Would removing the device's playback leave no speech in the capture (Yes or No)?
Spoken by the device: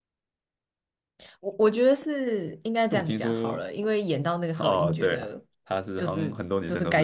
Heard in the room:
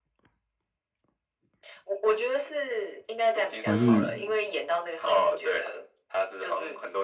No